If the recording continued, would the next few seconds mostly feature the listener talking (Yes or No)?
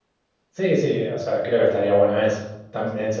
No